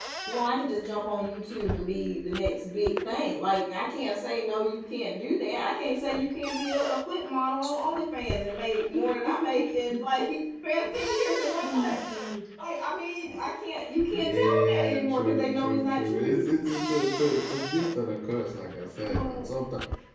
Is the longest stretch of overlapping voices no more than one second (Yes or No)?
No